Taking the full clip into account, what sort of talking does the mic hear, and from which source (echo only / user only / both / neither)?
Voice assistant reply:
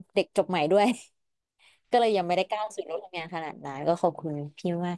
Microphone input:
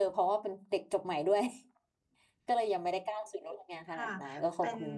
both